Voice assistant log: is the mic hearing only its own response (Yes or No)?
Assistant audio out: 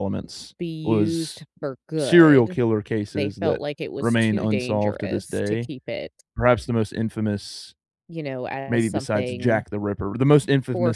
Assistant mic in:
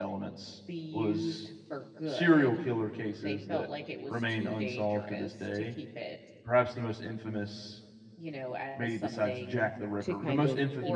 No